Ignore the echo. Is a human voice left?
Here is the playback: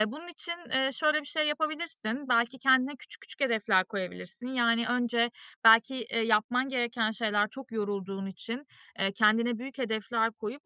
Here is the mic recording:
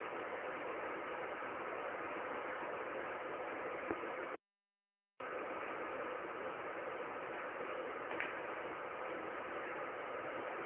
No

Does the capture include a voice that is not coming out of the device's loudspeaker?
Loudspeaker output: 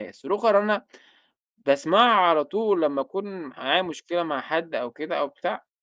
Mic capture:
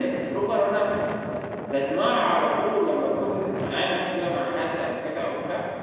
No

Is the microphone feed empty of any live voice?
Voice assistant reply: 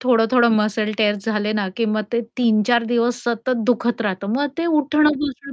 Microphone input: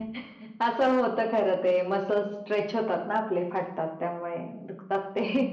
No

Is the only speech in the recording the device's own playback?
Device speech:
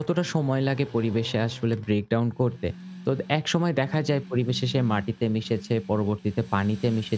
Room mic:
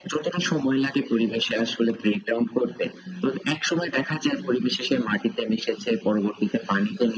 Yes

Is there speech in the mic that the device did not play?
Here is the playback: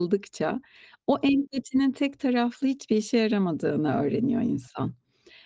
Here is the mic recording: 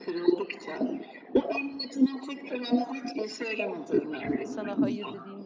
Yes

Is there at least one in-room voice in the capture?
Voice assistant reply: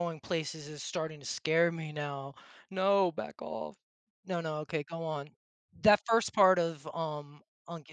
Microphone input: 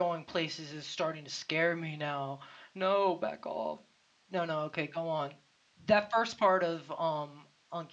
No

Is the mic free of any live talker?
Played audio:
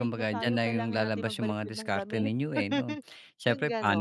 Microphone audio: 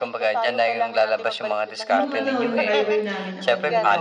No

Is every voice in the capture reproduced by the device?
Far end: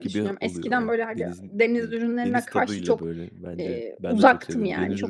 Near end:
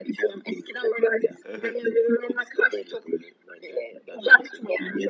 No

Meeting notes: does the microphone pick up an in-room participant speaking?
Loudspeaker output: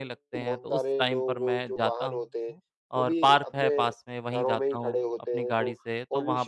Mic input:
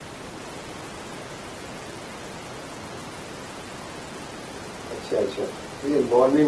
Yes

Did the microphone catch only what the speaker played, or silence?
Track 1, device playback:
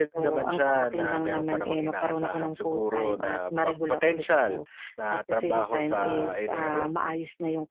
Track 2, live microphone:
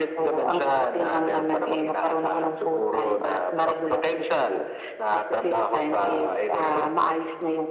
Yes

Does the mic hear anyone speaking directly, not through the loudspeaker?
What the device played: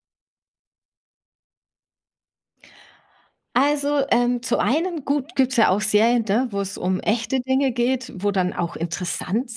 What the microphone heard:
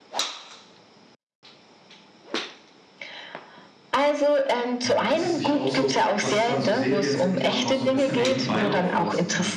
Yes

